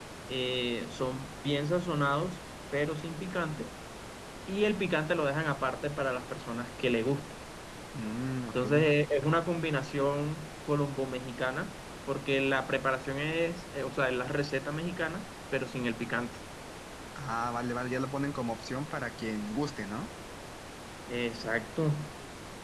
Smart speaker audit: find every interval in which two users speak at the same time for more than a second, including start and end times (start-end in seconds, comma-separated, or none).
none